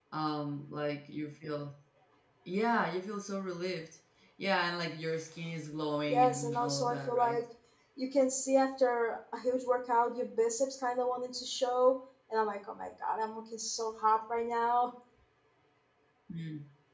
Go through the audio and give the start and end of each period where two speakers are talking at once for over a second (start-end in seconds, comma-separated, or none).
6.1-7.4